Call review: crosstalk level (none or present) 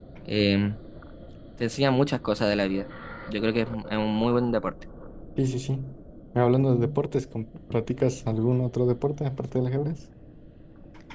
none